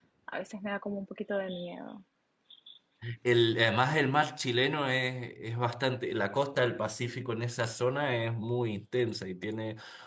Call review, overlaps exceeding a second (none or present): none